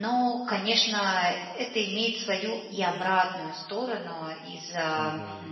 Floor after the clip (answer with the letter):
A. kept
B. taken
A